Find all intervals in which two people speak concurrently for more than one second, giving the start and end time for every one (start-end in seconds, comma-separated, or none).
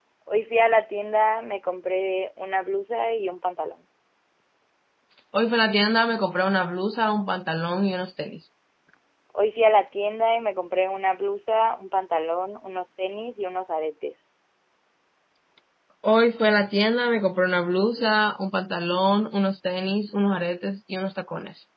none